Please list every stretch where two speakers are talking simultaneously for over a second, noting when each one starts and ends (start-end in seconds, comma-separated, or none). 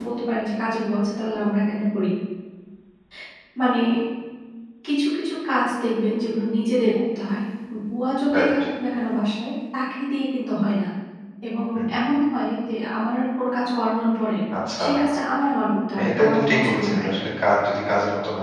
16.0-17.2